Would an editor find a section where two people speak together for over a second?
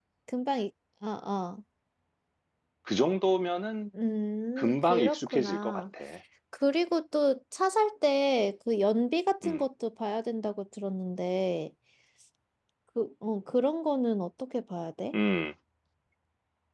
Yes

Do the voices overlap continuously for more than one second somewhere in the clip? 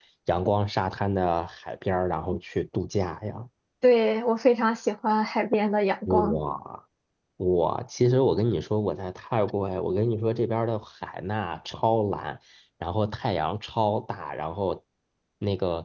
No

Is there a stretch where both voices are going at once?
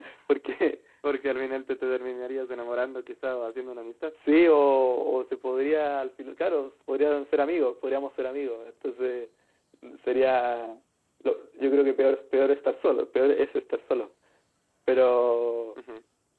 No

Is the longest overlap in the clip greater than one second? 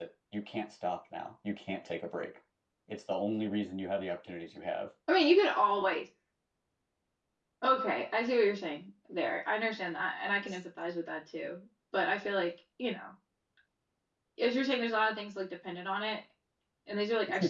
No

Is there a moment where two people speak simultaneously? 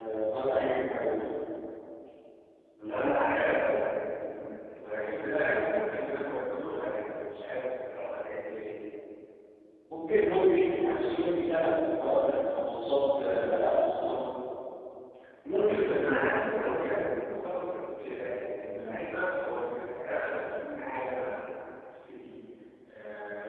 No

